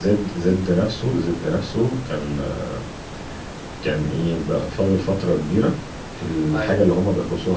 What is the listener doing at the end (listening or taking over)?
listening